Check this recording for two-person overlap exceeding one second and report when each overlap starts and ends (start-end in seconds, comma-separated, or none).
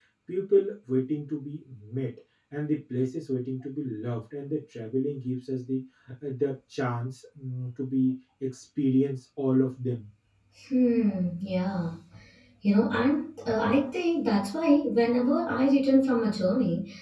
none